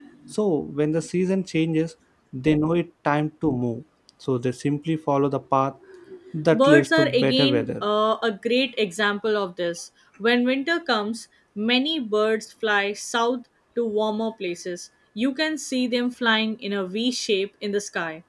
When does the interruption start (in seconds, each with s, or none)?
6.5 s